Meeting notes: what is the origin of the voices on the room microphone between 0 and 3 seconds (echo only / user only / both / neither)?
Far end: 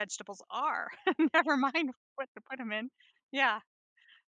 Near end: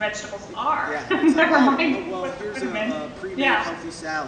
both